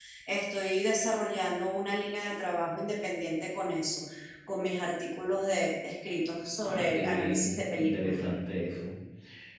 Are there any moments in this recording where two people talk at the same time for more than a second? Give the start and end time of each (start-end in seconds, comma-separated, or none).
6.6-8.2